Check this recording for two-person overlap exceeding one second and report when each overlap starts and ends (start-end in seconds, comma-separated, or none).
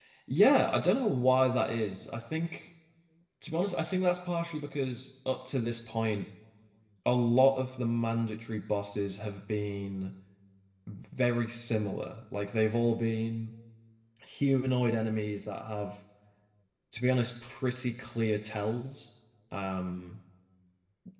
none